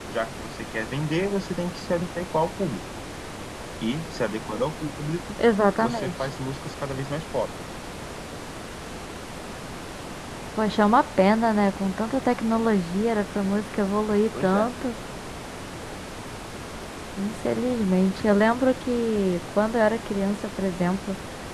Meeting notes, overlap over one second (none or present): none